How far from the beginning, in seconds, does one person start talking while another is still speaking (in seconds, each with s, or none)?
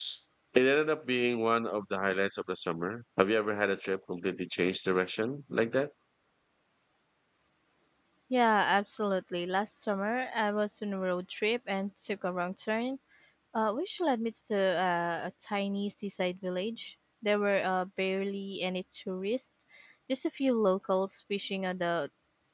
none